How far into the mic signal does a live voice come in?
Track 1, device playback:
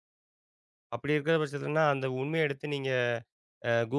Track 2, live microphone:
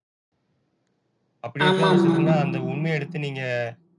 1.7 s

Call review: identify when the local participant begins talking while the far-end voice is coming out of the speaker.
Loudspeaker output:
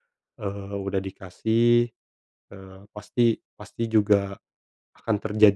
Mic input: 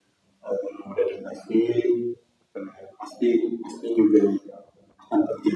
none

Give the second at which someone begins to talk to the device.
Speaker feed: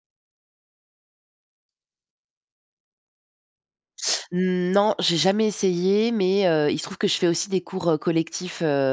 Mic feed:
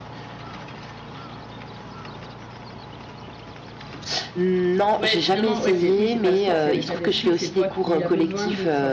5.0 s

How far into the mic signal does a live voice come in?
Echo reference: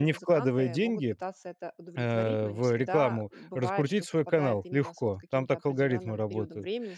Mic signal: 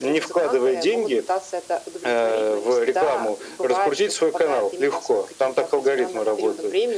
none

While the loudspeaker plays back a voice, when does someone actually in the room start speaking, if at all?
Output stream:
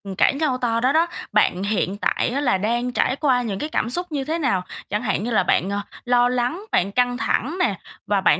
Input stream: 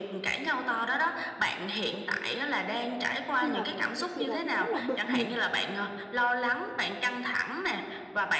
3.4 s

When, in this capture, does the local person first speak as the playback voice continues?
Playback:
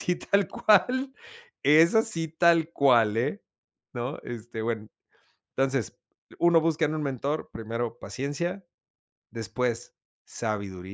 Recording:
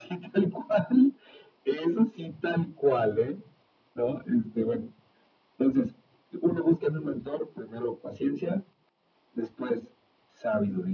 none

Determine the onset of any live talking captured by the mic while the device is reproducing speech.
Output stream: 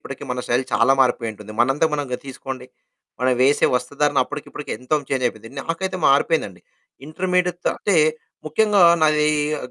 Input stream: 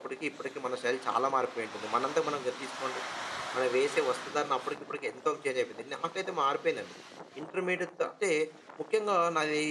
none

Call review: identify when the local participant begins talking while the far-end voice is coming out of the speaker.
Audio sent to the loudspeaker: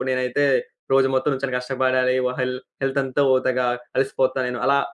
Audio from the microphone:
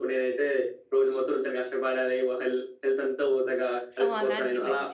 4.0 s

